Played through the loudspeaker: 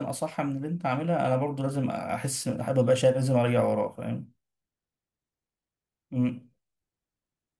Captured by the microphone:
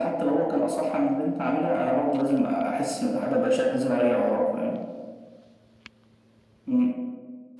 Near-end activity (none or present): none